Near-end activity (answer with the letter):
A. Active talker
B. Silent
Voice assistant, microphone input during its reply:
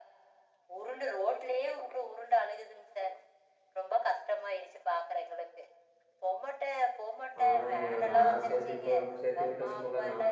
A